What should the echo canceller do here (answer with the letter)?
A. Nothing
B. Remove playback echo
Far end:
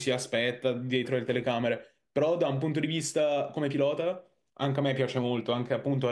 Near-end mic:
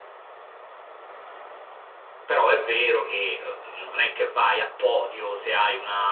A